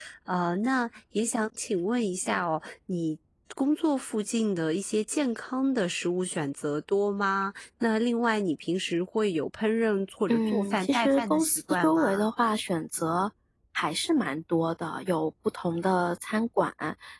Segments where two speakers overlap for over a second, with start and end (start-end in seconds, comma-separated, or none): 10.3-12.3